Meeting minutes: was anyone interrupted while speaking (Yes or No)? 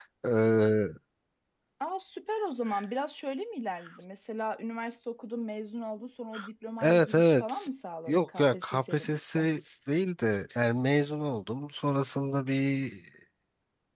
Yes